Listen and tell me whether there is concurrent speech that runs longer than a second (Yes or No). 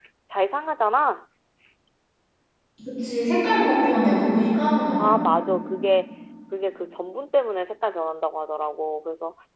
No